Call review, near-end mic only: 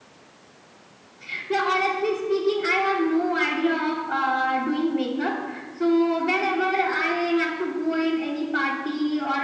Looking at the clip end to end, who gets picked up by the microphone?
echo only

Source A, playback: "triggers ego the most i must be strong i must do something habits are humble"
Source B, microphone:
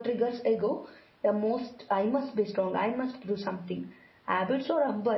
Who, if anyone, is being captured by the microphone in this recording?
echo only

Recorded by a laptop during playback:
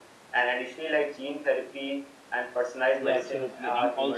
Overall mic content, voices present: both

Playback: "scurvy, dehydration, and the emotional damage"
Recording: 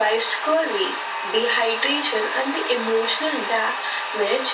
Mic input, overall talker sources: echo only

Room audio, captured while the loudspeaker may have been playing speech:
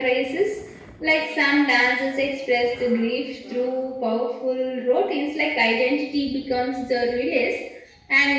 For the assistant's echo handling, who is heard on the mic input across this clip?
echo only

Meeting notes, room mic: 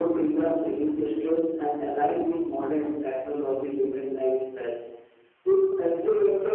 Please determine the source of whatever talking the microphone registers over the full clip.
echo only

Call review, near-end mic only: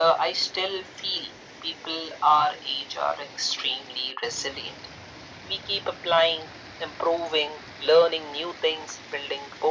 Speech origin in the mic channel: echo only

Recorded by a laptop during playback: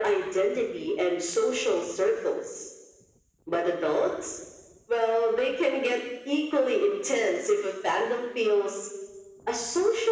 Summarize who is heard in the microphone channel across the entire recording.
echo only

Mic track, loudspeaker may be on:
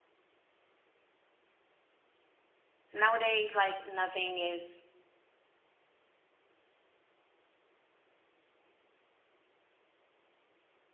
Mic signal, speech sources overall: user only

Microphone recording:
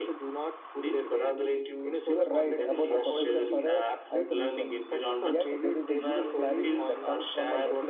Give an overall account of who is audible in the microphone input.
both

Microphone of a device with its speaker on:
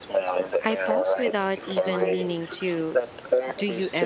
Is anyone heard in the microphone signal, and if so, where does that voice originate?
both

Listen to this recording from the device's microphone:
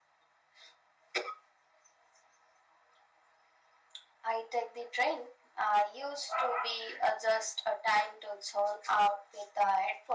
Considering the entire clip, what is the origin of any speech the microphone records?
echo only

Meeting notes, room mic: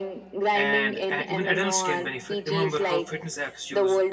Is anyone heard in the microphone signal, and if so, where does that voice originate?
both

